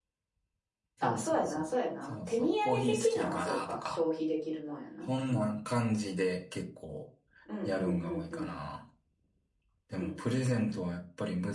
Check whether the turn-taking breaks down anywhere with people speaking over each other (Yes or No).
Yes